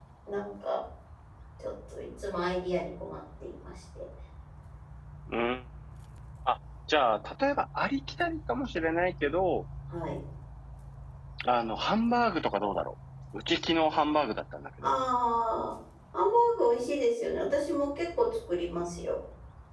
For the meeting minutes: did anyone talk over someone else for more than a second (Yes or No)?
No